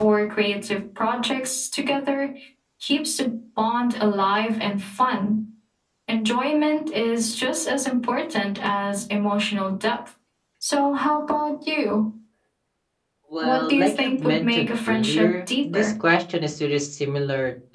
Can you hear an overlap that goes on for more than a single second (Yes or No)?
Yes